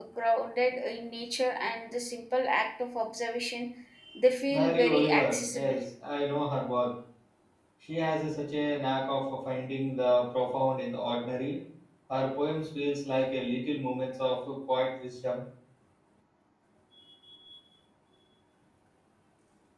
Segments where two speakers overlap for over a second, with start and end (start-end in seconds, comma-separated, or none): 4.5-5.8